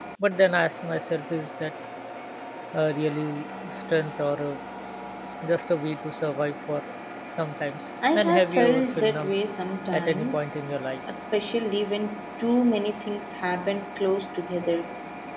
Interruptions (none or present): present